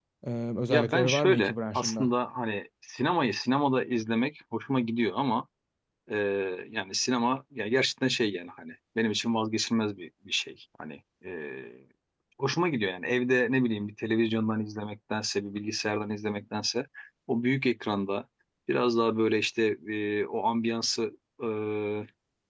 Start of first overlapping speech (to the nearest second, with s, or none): 1 s